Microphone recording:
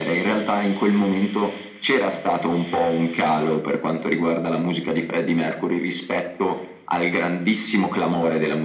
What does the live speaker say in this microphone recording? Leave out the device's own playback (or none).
none